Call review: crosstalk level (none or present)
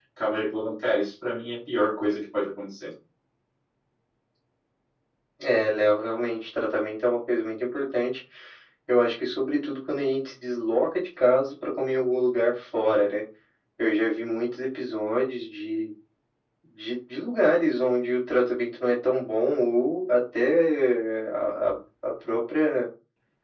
none